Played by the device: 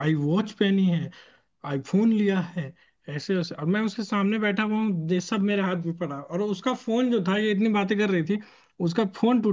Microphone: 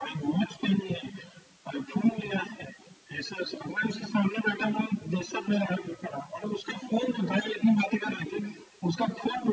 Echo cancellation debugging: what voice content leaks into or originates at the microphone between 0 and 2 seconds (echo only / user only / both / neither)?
echo only